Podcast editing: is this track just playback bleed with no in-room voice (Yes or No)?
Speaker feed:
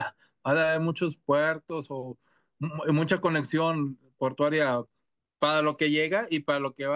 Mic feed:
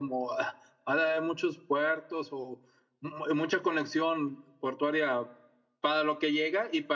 Yes